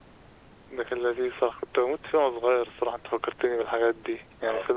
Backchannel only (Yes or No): Yes